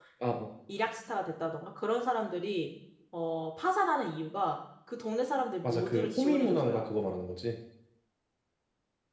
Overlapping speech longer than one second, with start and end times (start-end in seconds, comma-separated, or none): 5.6-6.9